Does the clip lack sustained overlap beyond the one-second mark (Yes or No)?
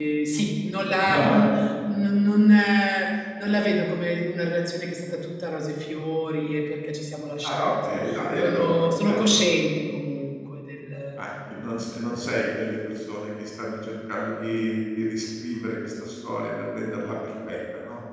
No